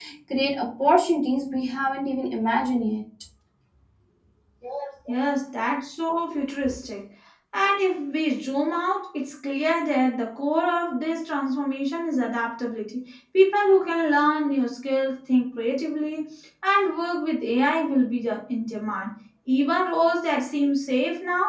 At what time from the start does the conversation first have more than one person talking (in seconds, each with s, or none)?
none